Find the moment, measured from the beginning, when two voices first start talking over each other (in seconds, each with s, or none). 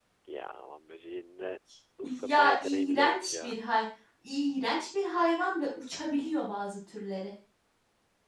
2.0 s